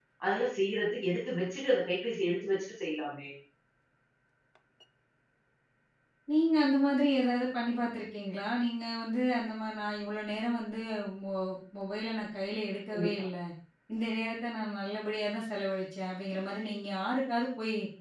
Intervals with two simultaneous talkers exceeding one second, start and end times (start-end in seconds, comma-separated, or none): none